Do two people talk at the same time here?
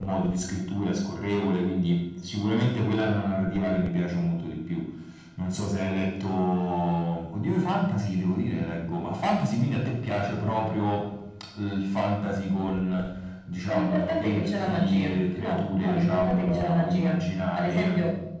Yes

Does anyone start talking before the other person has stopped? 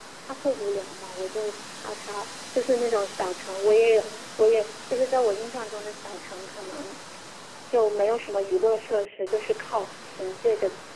No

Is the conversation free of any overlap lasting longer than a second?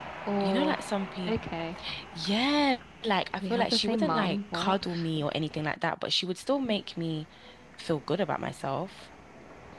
No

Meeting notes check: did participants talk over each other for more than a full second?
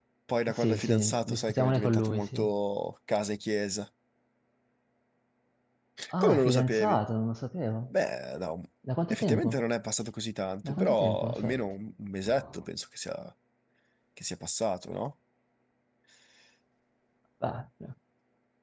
Yes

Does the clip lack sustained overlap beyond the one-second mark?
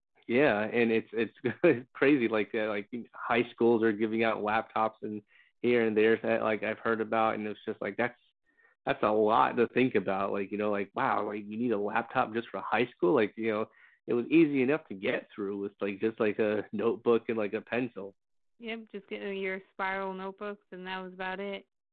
Yes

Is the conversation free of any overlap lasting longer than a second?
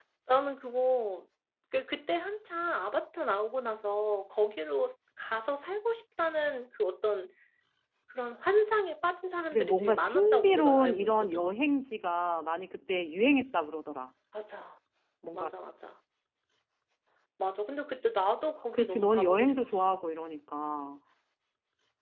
No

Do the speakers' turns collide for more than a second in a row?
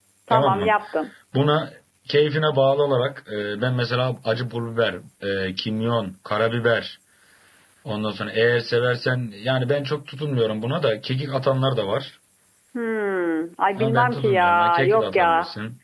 Yes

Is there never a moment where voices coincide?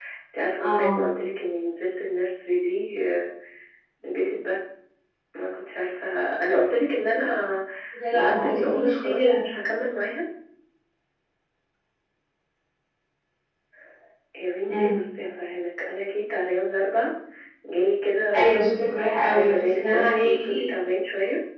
No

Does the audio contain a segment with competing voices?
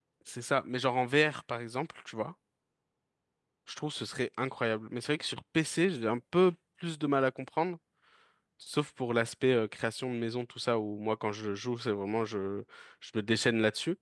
No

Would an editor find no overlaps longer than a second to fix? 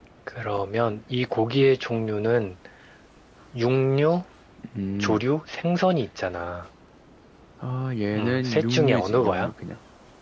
No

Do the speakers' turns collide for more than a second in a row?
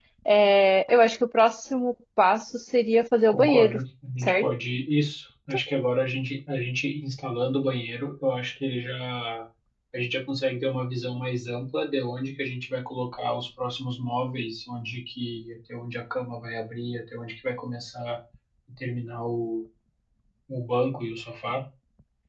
No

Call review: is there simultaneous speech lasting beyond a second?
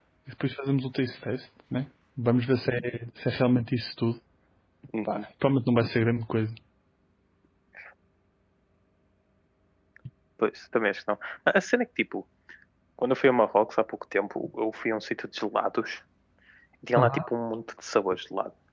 No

